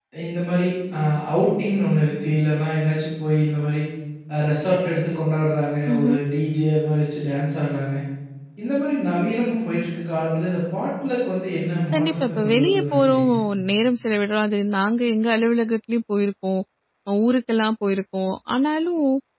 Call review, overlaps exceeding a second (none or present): present